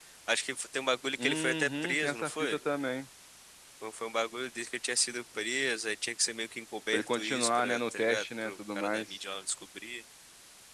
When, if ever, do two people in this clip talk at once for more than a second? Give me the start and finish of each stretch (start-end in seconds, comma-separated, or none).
1.2-2.6, 6.9-9.2